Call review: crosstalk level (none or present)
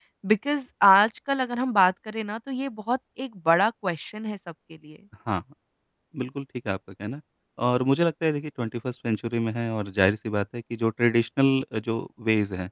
none